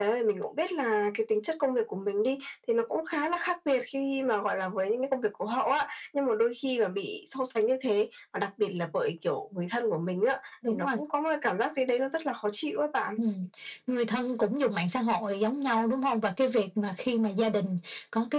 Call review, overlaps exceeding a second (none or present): none